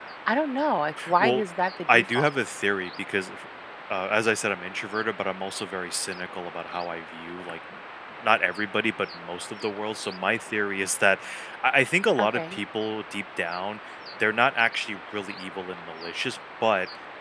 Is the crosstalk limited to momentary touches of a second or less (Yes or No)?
Yes